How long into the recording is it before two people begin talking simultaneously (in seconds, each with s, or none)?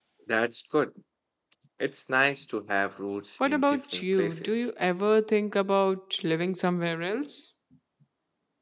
3.4 s